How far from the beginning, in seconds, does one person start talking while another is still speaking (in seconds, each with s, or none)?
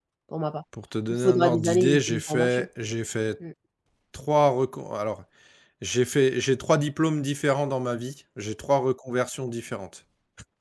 1.1 s